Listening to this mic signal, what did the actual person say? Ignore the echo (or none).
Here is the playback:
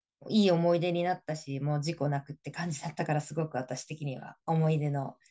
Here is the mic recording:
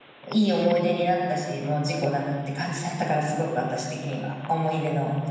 none